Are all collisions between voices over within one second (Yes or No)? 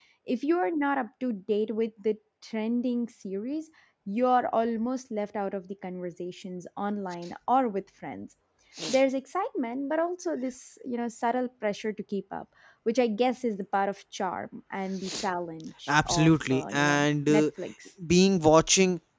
No